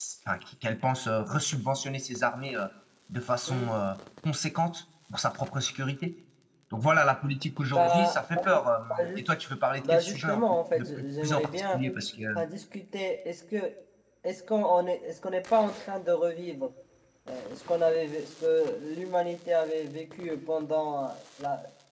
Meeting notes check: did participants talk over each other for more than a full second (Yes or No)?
Yes